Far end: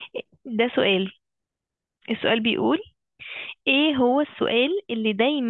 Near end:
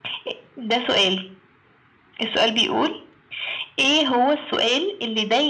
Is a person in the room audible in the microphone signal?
No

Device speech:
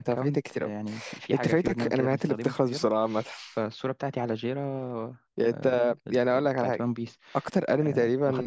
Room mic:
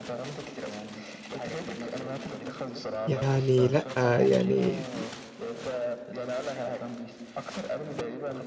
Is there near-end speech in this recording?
Yes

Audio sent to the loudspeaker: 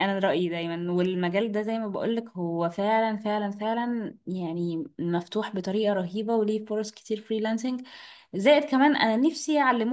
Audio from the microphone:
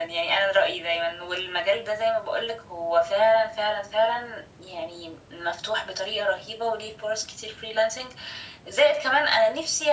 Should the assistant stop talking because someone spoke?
No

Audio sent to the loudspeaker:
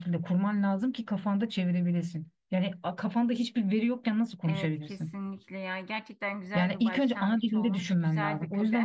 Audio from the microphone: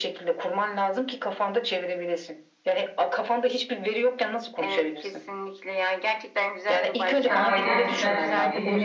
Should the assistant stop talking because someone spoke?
Yes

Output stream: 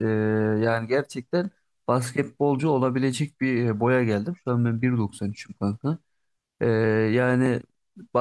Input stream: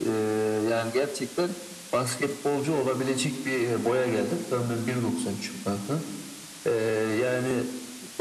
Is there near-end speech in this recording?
No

